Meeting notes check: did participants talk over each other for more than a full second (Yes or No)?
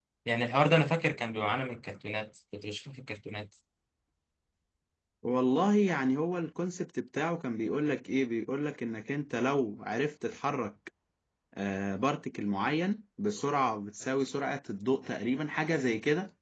No